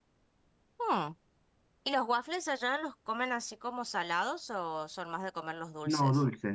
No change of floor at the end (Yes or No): No